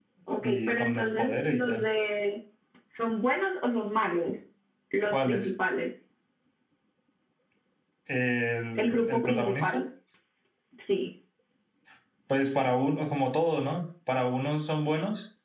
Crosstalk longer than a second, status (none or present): present